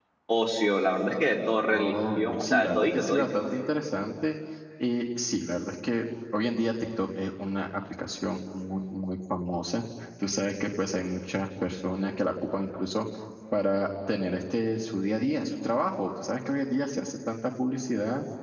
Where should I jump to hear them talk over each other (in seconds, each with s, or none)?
1.7 s